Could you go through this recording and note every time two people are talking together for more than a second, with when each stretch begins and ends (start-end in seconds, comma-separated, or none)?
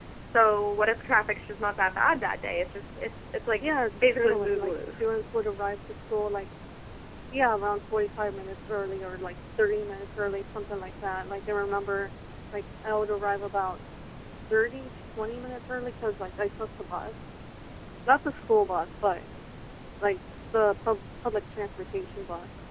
3.6-5.0